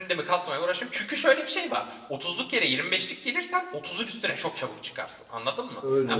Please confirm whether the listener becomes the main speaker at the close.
No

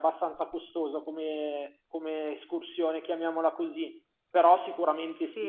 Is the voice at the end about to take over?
Yes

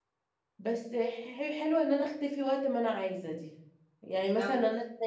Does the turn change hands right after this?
No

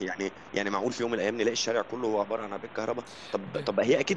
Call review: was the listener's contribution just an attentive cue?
Yes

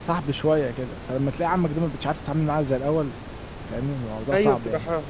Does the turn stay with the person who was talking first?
No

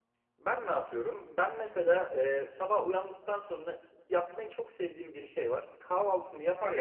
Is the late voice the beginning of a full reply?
No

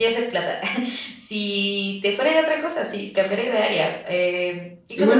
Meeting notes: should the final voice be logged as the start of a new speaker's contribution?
Yes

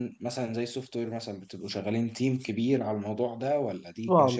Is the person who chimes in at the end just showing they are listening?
No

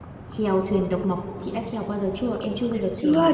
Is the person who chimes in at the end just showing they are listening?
No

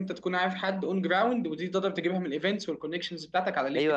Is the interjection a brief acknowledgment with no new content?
No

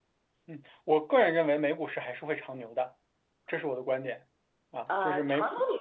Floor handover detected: Yes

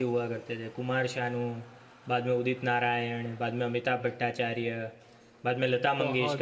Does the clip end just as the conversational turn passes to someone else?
Yes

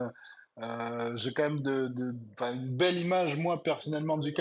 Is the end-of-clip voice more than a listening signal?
No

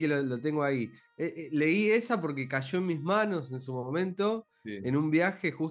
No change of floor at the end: Yes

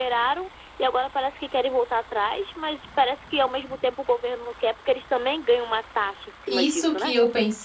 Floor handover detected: Yes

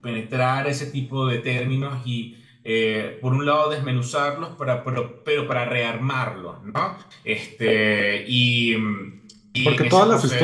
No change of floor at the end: No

